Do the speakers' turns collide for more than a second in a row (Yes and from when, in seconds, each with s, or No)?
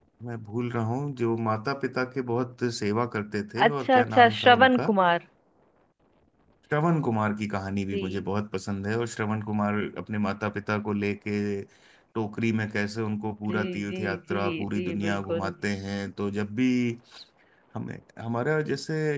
Yes, from 3.7 s